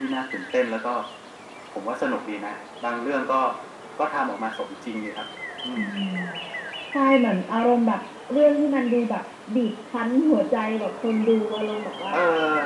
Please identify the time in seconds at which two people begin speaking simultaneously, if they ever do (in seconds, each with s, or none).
none